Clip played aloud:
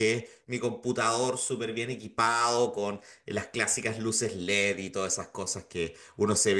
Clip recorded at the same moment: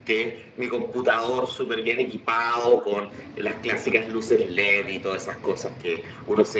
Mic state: echo only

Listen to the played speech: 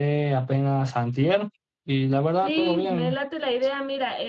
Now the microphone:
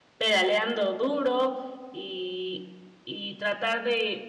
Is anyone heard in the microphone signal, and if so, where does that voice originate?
user only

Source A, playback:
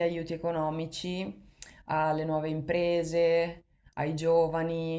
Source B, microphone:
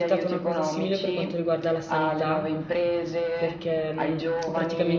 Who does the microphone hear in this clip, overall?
both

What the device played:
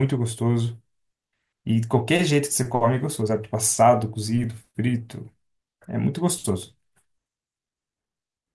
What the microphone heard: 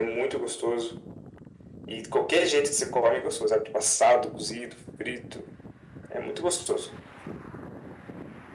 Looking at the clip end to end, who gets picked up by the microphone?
echo only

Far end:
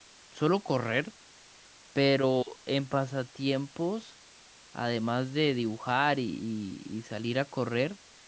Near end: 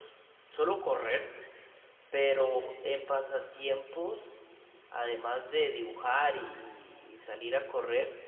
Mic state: echo only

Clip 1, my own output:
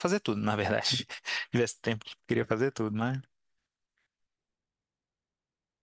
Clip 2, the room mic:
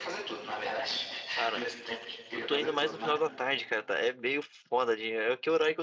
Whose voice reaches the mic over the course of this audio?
both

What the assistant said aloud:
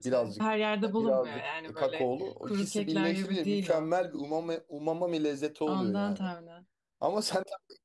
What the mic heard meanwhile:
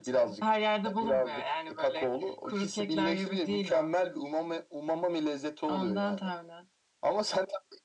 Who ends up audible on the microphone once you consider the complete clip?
echo only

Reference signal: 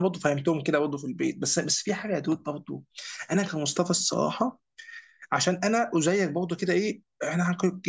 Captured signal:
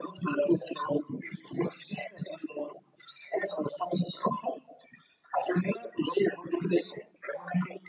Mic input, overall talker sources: echo only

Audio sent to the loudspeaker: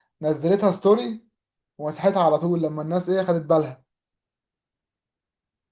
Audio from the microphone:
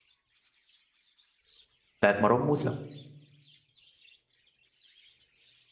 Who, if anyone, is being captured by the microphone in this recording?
user only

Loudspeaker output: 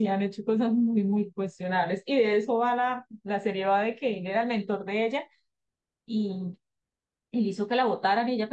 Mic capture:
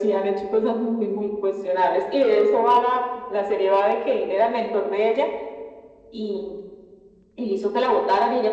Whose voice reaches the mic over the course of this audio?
echo only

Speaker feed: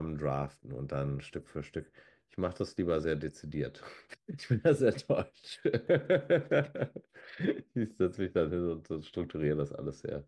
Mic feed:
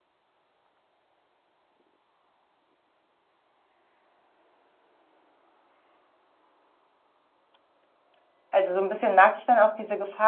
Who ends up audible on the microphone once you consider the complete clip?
user only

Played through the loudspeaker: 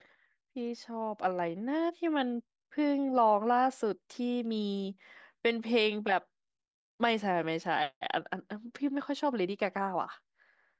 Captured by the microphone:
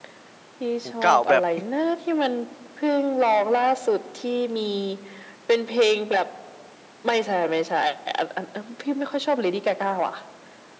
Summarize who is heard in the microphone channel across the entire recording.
both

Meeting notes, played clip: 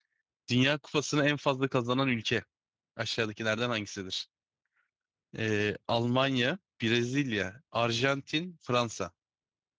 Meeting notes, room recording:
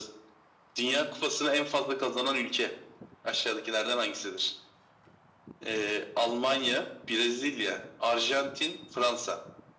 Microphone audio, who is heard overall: echo only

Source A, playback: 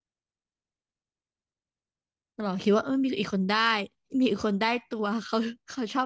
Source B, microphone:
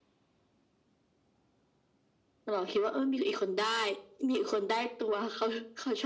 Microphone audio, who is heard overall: echo only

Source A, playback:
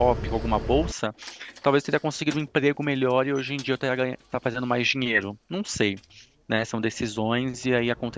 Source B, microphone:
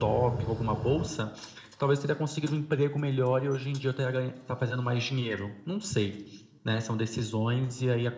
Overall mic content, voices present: echo only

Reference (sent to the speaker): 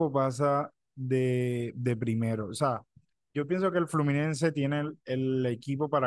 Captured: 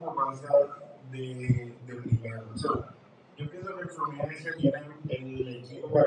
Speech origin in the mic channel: echo only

